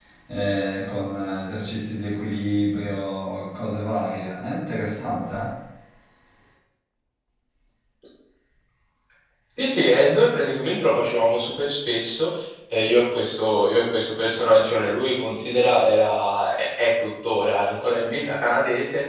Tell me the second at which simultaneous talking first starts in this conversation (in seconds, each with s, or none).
none